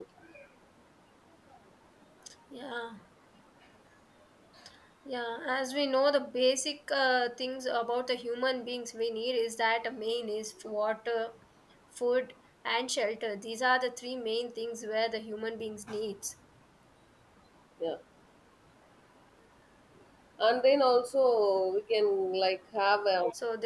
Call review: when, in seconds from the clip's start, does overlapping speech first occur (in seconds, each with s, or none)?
none